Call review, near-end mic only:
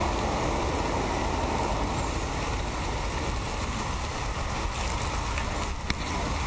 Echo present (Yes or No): No